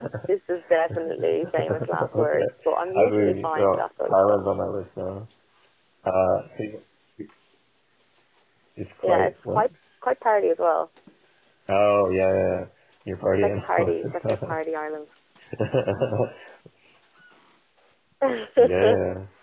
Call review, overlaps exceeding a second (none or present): present